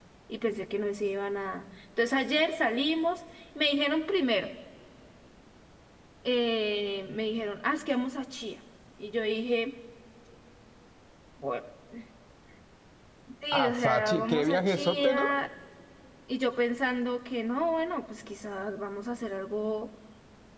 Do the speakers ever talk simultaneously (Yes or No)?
Yes